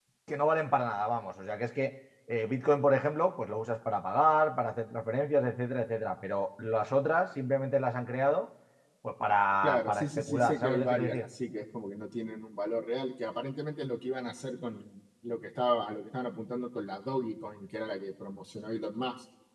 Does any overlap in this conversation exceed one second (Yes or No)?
Yes